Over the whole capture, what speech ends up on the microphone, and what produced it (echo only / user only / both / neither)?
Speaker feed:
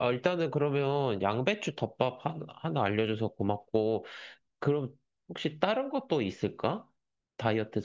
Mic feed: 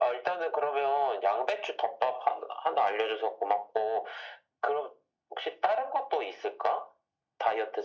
echo only